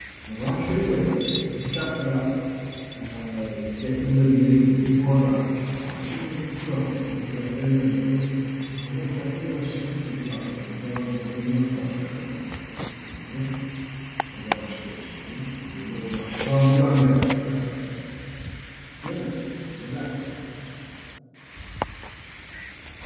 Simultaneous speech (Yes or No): No